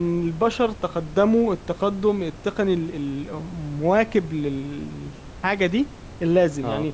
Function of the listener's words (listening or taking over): listening